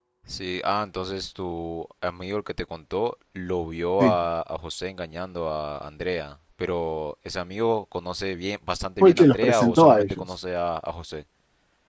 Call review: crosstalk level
present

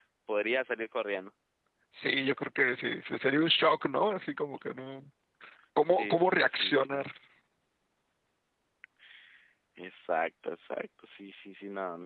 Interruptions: present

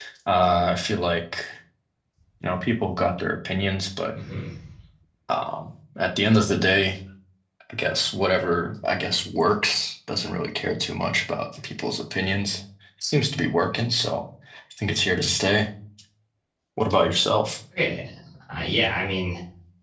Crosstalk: none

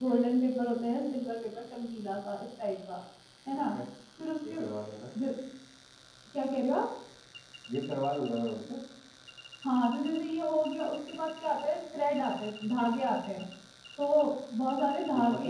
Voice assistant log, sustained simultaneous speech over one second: none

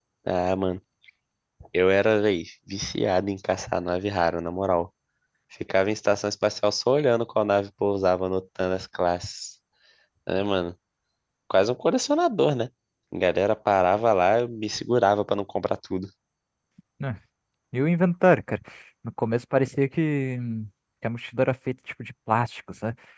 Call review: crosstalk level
none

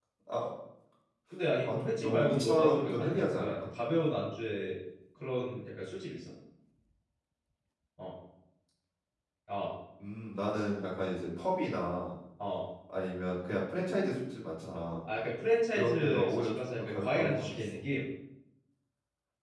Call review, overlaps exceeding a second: present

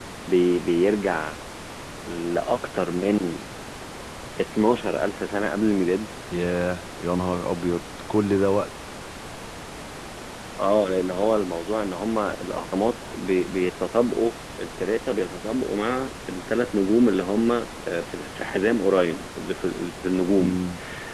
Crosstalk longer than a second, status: none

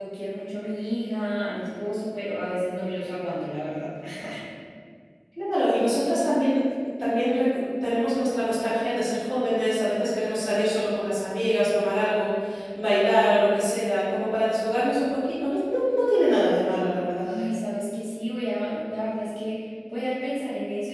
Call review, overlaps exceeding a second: none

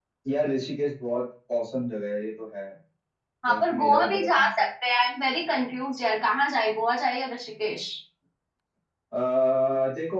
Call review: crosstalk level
present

